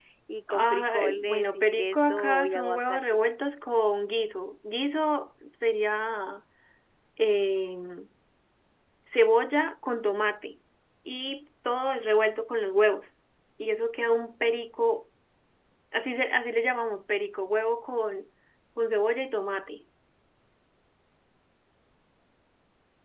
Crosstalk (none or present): present